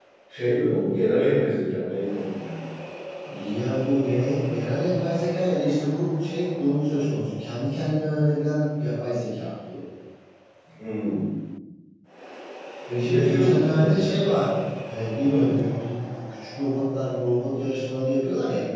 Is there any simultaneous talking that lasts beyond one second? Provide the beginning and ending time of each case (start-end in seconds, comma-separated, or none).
13.0-14.5